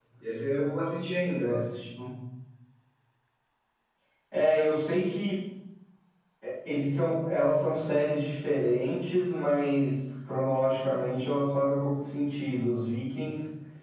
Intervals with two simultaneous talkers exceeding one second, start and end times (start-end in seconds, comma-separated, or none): none